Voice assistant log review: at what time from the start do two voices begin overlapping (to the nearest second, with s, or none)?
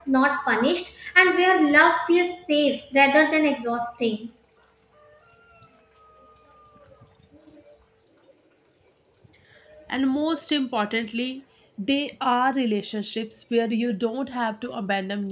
none